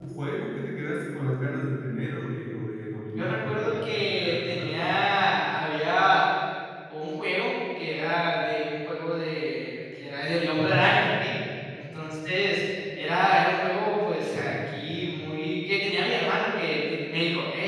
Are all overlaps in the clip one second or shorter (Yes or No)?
No